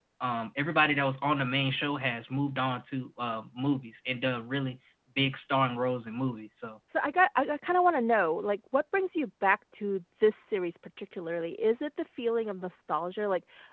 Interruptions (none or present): none